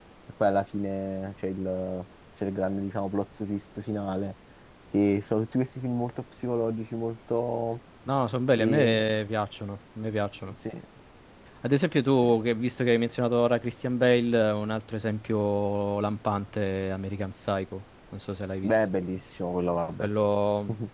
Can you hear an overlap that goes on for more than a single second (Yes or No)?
No